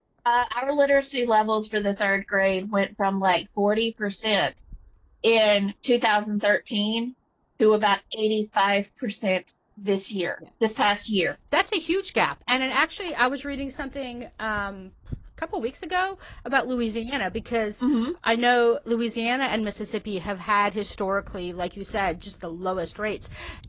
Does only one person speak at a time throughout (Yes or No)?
Yes